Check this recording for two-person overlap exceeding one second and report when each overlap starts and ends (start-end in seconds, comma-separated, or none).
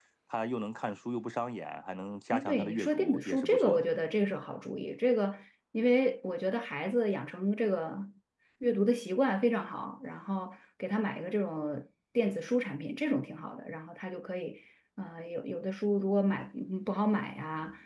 2.3-3.8